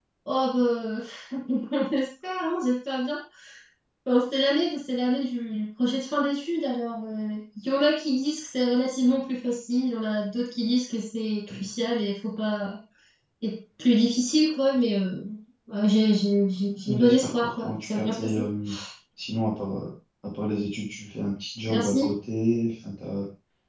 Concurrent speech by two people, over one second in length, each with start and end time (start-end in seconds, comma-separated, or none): 16.9-18.4